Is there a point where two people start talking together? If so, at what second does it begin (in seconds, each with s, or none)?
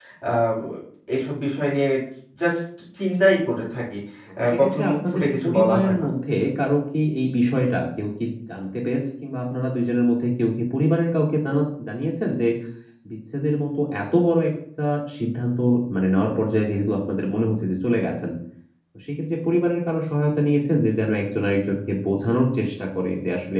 4.4 s